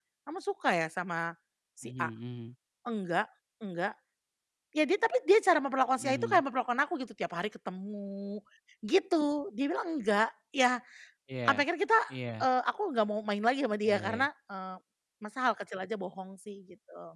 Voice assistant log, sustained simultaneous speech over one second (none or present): none